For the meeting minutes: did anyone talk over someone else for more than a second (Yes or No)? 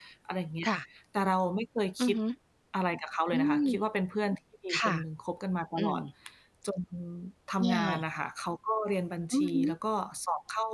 No